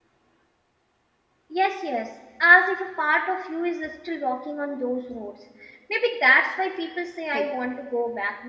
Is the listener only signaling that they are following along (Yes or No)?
Yes